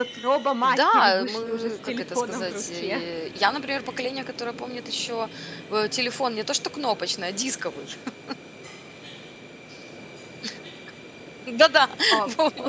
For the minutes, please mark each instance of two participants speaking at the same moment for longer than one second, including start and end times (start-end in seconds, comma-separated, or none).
0.6-3.0